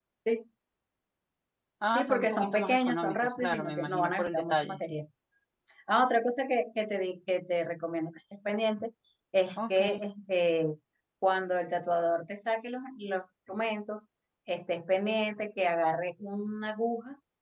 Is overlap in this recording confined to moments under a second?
No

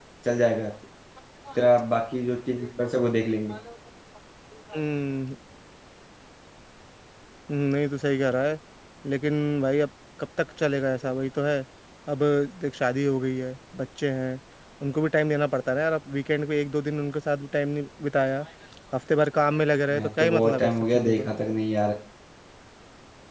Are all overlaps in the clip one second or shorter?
No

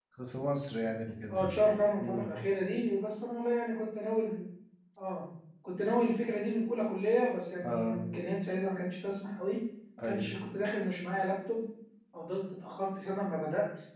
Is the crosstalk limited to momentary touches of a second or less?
Yes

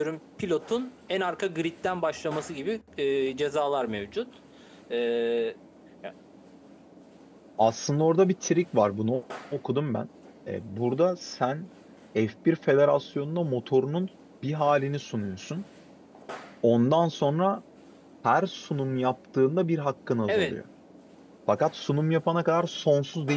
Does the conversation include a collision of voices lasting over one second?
No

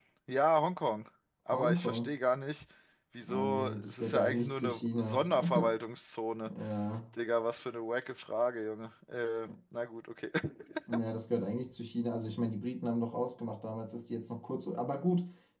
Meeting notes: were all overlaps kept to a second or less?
No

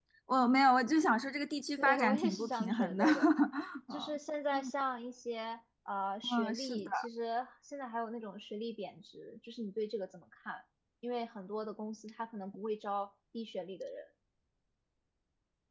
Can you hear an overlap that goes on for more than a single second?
Yes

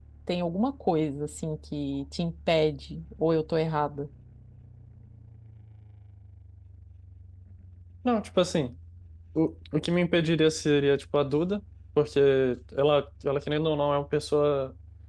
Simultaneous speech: No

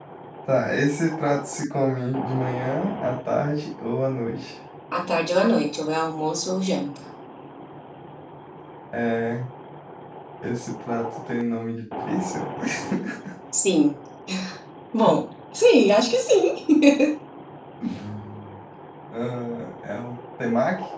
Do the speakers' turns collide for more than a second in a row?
No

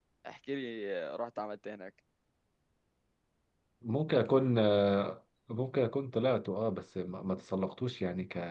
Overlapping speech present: No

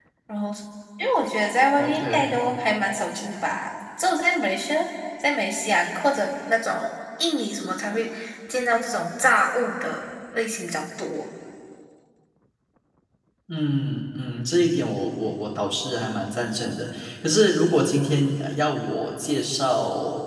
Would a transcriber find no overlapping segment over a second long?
Yes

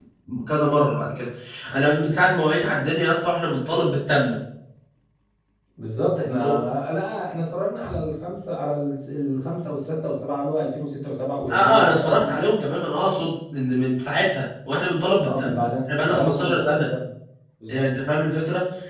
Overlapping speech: Yes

